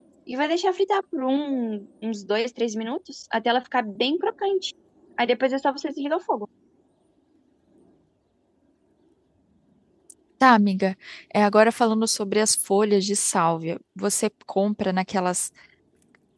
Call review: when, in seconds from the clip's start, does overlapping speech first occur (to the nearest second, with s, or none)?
none